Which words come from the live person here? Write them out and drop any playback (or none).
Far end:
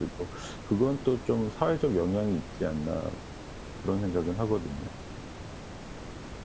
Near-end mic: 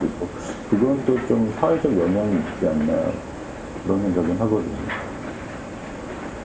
none